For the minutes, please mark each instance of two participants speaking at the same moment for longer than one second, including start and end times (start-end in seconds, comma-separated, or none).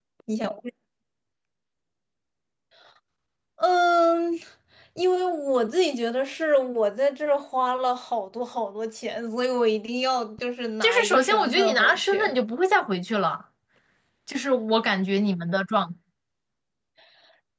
10.8-12.2